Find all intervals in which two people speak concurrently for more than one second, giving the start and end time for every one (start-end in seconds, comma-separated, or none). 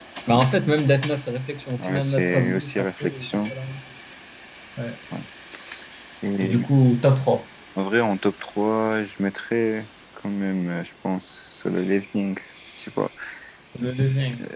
1.8-3.5